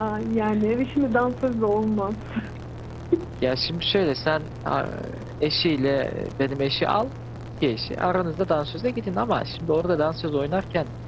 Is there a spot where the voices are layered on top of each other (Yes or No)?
No